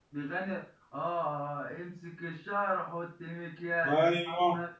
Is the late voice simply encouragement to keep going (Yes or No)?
No